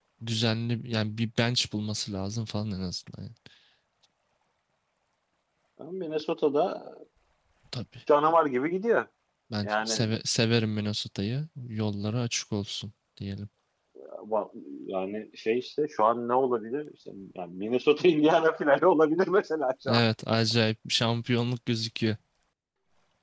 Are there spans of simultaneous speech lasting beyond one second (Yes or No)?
No